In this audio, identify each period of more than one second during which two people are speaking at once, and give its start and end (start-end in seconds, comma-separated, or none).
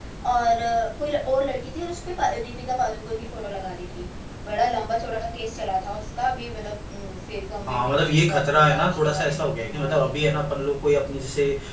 7.7-10.3